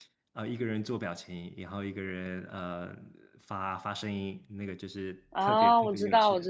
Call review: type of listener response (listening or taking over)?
taking over